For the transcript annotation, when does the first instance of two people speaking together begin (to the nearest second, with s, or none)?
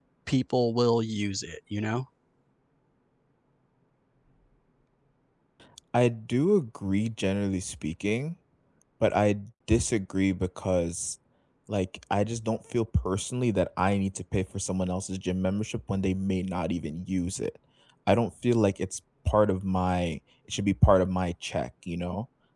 none